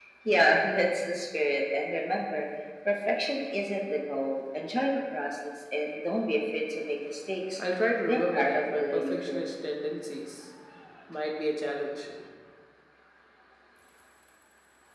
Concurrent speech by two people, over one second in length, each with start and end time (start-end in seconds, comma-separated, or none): 8.1-9.5